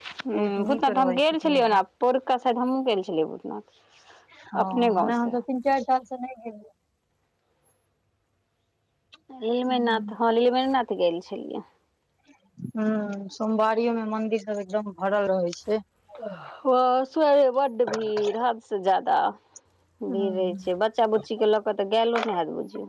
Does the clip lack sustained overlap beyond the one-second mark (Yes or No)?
No